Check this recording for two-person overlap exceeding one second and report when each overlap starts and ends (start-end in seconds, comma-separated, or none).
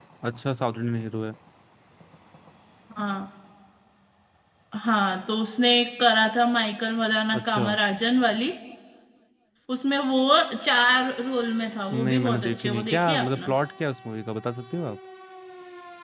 11.9-13.5